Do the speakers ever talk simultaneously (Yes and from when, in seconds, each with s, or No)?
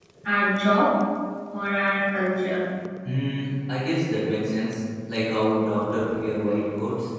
No